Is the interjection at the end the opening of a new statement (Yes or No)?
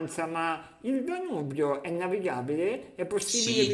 Yes